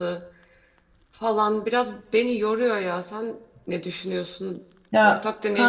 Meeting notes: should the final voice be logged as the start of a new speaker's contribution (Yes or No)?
Yes